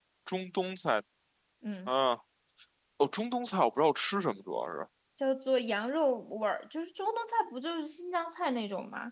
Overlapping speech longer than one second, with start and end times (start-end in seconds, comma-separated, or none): none